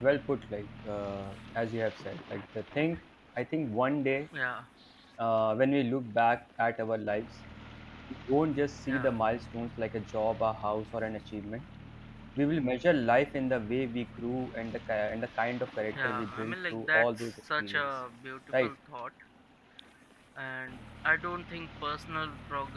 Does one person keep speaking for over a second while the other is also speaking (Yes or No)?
Yes